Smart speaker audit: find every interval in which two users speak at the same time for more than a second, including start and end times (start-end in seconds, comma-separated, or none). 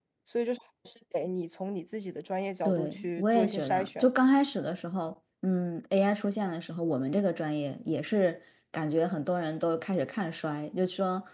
2.6-4.1